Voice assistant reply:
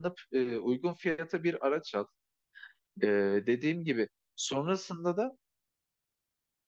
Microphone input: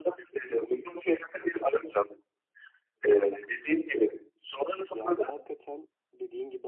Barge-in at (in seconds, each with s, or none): 4.9 s